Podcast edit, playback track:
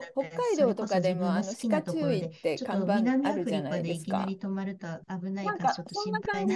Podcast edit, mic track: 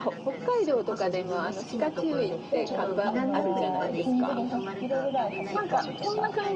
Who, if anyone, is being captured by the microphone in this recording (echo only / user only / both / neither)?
both